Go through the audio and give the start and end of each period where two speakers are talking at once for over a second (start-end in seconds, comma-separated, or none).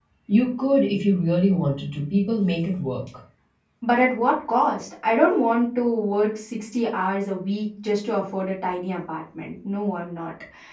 none